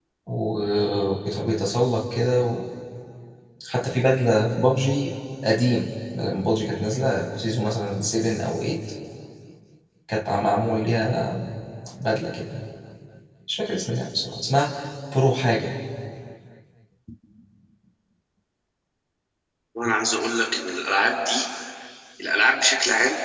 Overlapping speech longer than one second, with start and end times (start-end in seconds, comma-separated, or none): none